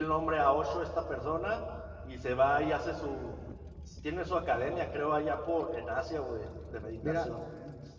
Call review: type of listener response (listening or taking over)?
taking over